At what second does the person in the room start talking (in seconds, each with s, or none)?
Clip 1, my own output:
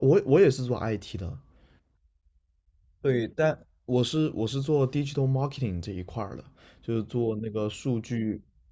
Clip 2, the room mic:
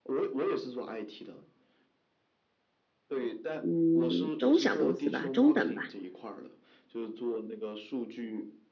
3.6 s